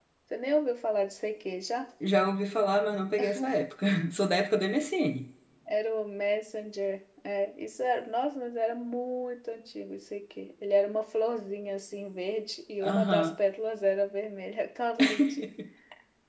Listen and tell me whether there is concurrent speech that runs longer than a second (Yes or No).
No